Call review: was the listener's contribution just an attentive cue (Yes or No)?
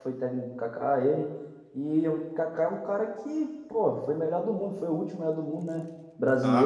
No